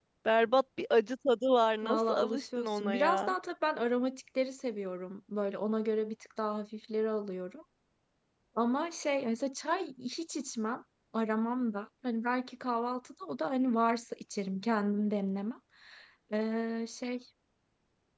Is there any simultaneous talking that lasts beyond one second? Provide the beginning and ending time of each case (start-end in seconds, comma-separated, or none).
1.8-3.3